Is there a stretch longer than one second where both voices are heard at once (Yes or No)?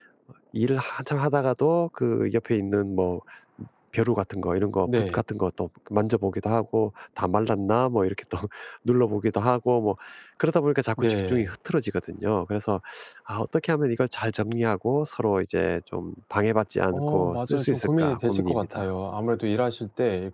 Yes